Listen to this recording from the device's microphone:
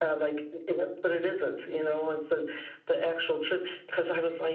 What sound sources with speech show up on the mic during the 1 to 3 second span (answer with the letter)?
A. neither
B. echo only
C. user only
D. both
B